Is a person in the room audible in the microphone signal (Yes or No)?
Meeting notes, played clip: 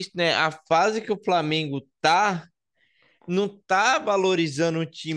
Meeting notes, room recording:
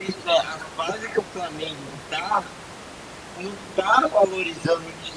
No